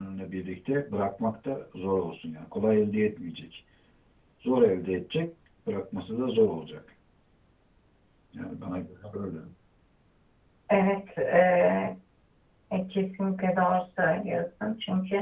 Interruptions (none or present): none